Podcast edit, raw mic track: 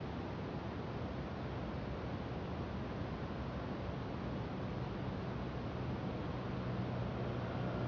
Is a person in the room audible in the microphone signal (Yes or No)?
No